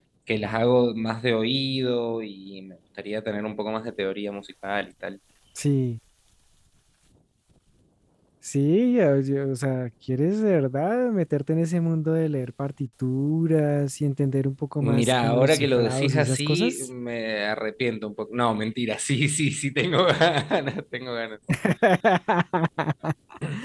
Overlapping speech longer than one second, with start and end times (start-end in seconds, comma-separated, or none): 14.8-16.9